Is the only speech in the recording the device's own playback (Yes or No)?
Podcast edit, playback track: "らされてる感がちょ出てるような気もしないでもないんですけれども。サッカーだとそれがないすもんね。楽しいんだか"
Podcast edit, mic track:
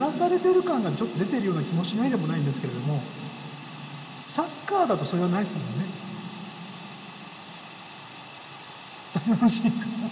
Yes